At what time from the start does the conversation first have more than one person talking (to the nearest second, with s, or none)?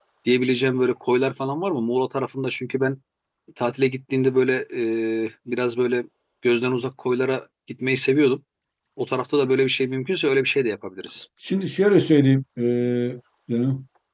none